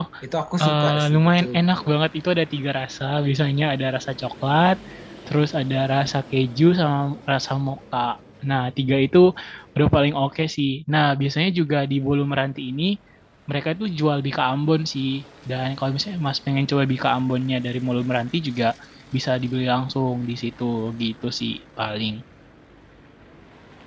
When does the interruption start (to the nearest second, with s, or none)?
1 s